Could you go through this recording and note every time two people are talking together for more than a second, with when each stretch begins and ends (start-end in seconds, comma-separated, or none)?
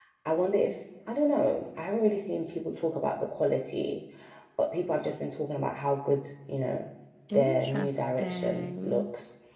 7.3-9.1